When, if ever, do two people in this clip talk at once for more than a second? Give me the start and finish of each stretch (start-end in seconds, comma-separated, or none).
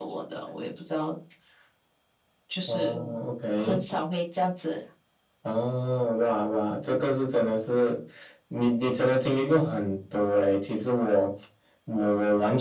none